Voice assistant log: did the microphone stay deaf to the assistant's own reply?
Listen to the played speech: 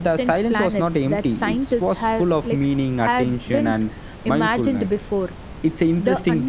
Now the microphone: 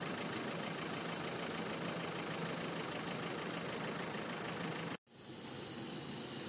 Yes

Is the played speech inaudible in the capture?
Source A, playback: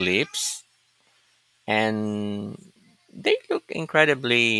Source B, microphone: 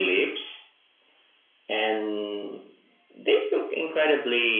No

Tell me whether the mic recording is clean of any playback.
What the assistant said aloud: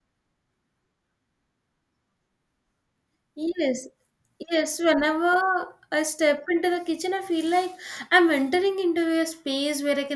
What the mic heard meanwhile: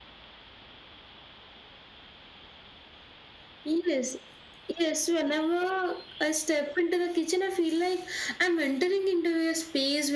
No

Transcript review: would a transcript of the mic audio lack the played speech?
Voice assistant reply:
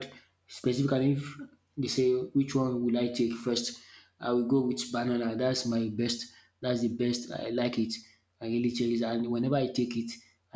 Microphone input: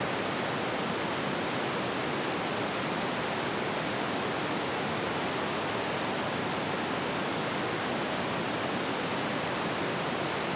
Yes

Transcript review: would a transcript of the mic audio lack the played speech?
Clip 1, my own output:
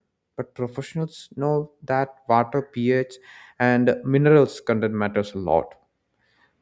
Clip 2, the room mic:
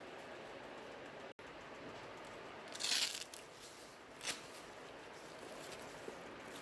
Yes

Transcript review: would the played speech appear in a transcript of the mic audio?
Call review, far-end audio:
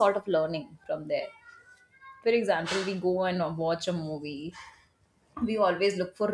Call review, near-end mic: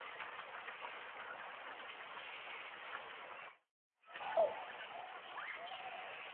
No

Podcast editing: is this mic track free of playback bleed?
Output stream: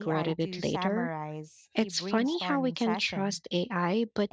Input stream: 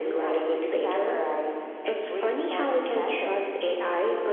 No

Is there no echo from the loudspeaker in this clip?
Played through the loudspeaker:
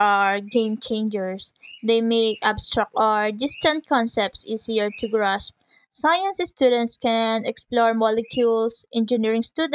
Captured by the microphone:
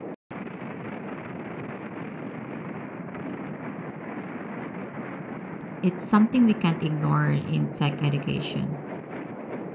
Yes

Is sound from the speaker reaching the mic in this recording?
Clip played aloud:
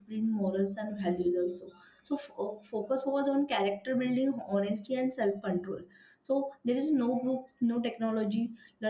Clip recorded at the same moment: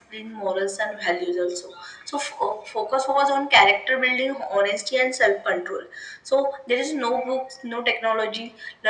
Yes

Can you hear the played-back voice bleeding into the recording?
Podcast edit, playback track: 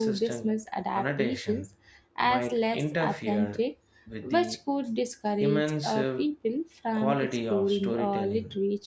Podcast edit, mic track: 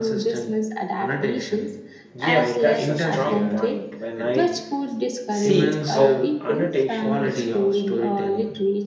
Yes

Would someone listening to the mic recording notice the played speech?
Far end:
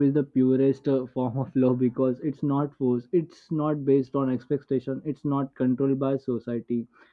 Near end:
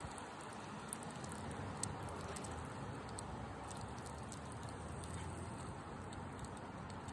No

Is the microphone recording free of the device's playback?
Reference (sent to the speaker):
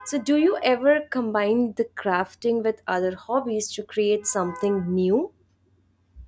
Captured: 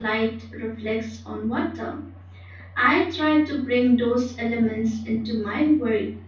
Yes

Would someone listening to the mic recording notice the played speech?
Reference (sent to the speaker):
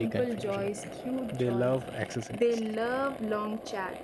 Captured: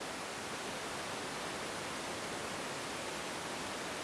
No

